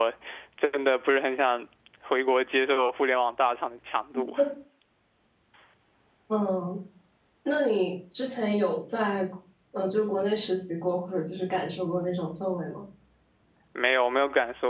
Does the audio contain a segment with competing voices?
No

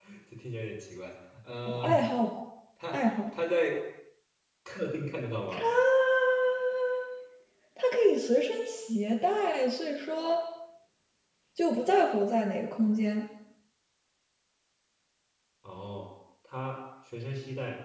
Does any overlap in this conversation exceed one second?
No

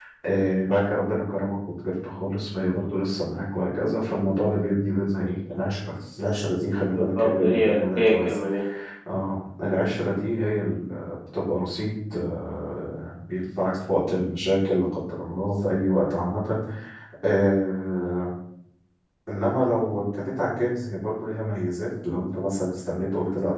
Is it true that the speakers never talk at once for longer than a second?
No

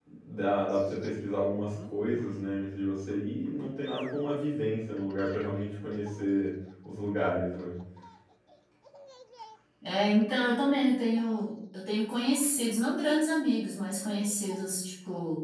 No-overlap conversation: Yes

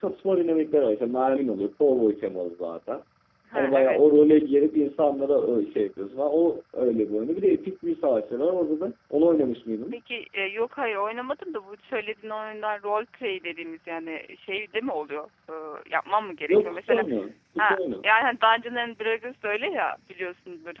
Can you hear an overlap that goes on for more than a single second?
No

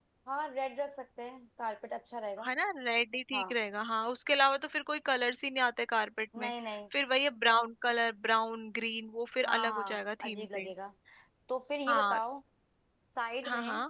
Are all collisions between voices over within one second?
No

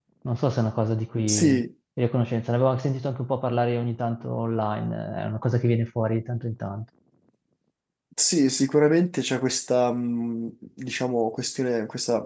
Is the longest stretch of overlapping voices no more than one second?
Yes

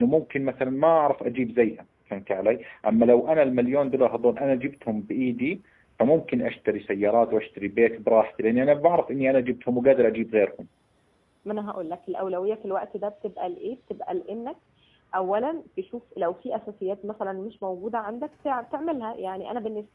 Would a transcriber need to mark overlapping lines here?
No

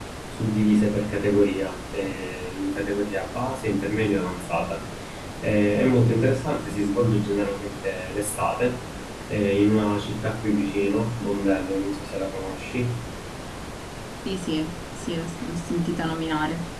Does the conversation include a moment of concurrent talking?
No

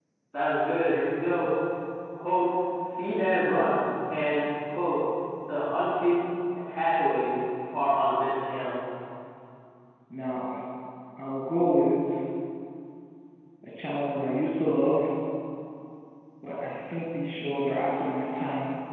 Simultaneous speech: No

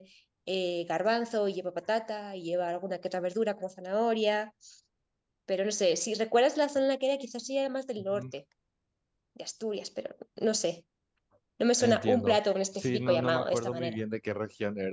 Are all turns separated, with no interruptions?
No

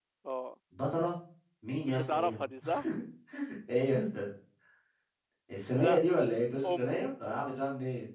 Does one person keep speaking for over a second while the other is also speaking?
No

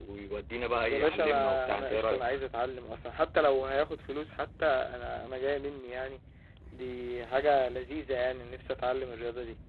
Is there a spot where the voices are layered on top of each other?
Yes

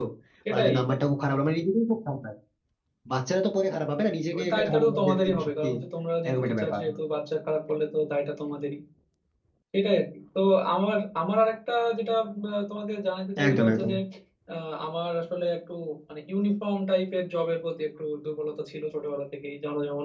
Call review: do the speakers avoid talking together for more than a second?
No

